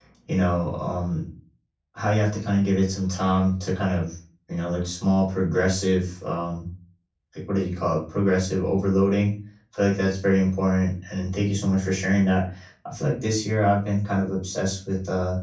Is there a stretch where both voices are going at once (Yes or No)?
No